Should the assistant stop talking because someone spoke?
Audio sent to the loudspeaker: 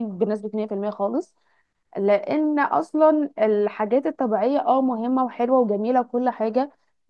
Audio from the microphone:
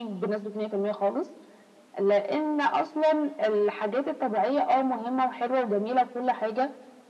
No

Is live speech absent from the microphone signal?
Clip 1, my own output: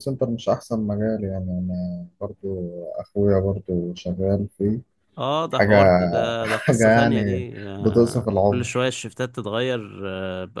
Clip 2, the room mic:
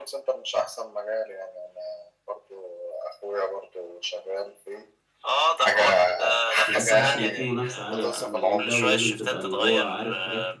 No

